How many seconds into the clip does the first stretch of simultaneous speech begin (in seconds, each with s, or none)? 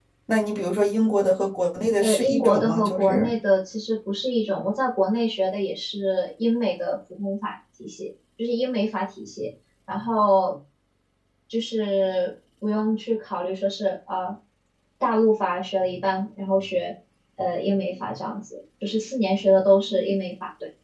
2.0 s